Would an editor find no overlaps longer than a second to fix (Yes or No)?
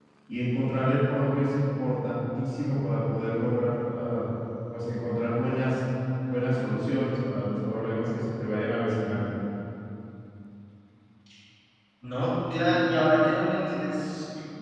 Yes